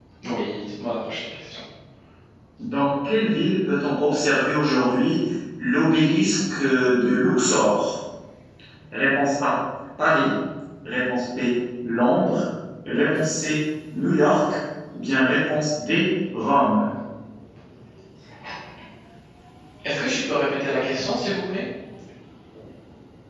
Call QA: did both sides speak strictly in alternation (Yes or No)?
Yes